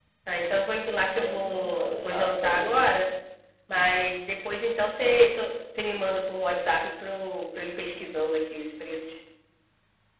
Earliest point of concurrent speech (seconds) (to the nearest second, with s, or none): 1 s